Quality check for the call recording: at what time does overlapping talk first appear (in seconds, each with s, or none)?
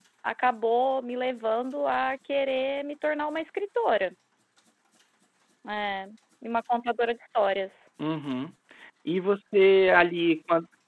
none